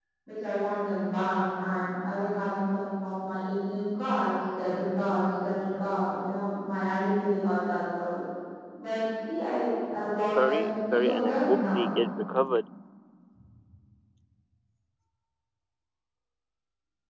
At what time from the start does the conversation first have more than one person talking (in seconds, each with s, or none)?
10.4 s